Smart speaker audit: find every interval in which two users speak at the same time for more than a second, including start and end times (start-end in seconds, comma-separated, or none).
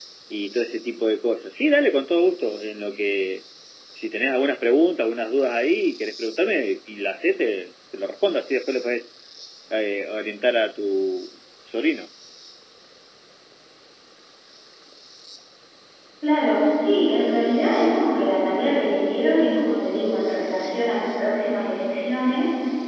none